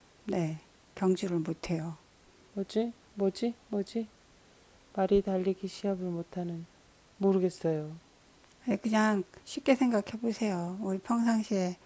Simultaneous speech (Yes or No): No